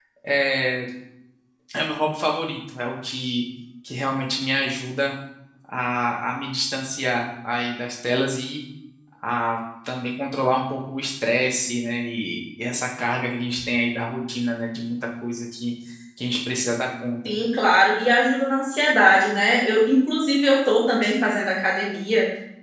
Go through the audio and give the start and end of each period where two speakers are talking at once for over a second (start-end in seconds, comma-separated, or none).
none